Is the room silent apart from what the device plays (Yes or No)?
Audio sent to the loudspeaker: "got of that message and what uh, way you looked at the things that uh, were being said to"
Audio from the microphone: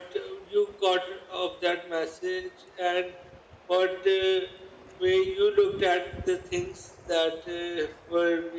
Yes